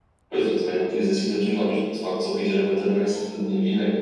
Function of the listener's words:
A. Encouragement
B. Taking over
A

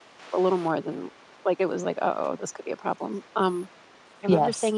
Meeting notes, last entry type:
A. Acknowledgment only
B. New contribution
A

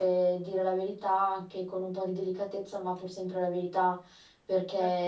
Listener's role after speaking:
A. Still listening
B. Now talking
A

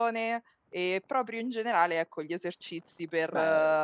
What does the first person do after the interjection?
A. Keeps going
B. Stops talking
A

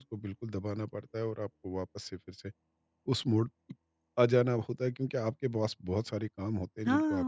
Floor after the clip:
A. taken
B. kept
A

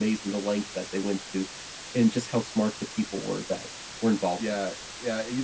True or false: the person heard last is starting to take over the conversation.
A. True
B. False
A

